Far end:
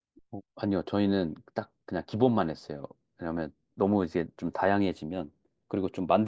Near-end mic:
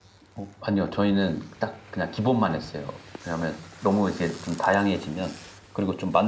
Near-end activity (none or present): none